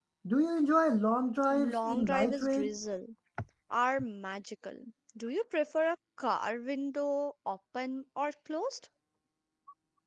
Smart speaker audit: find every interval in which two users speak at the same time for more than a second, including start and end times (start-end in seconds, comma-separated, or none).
1.5-2.7